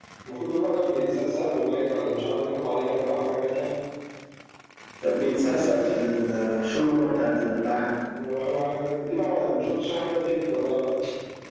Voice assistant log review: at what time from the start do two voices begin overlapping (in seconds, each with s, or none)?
none